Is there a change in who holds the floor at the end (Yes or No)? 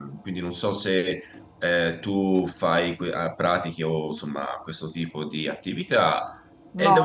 Yes